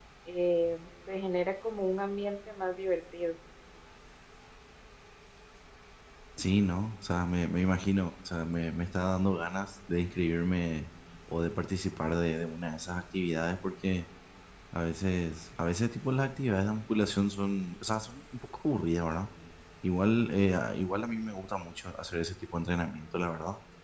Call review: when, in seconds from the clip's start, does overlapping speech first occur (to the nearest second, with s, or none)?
none